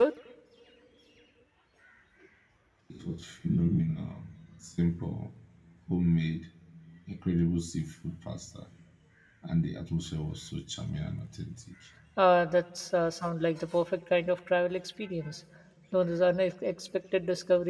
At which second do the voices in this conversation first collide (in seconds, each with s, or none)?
none